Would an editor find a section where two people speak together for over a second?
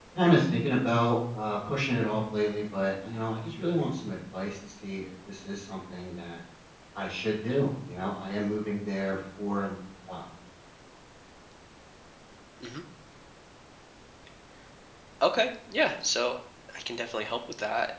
No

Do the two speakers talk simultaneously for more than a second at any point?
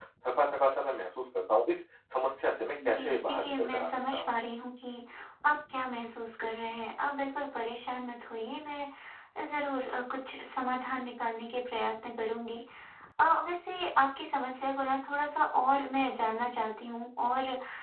Yes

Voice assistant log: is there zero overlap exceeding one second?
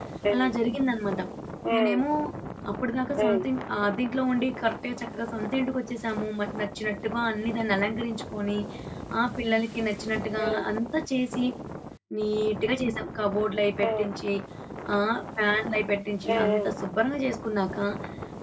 Yes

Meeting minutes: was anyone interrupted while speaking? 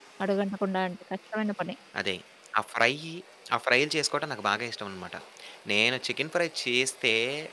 No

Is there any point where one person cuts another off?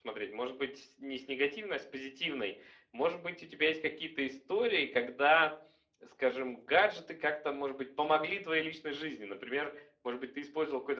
No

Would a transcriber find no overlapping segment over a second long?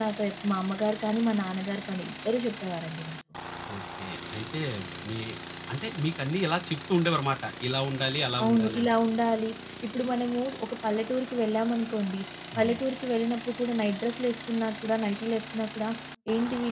Yes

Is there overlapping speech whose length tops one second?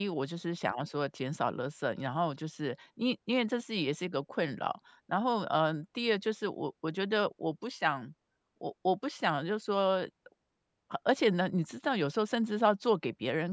No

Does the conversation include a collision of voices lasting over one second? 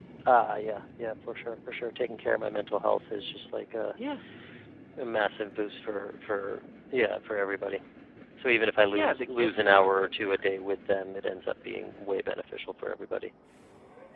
Yes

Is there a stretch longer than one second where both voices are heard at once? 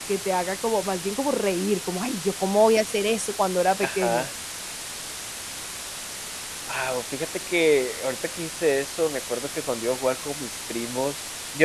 No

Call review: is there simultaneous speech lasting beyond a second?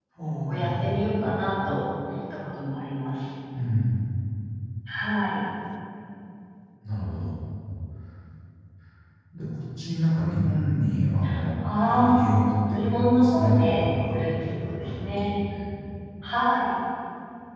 Yes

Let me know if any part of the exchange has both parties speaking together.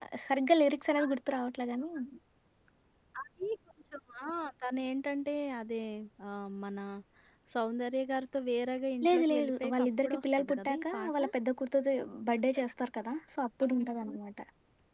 Yes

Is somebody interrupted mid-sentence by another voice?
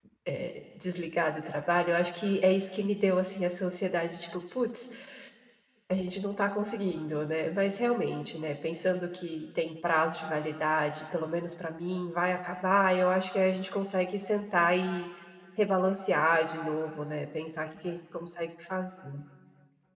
No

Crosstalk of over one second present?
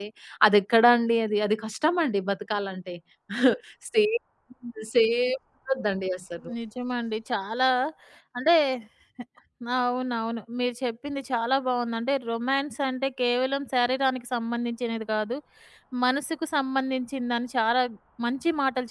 No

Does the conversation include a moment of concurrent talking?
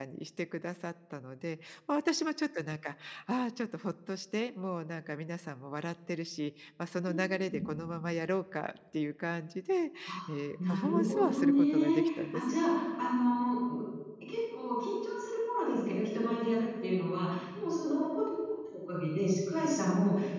Yes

